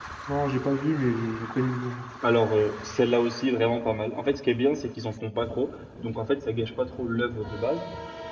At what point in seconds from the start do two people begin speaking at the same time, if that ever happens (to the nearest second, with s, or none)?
none